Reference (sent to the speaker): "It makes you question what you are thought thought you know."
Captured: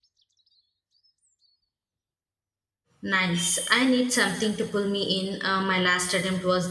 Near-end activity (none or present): present